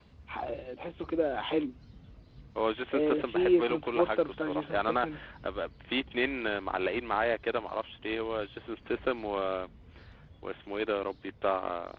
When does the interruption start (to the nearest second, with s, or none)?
3 s